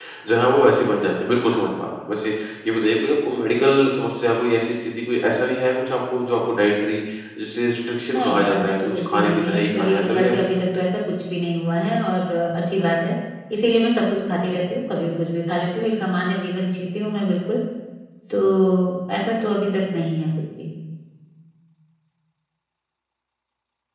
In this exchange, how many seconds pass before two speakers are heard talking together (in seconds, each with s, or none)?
8.1 s